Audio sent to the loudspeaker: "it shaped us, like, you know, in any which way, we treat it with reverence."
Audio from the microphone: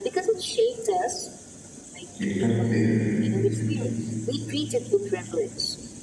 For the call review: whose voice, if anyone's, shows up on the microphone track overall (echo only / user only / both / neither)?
both